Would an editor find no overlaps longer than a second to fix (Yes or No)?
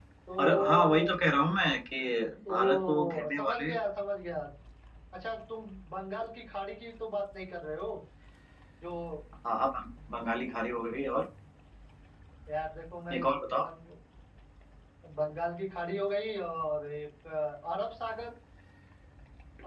No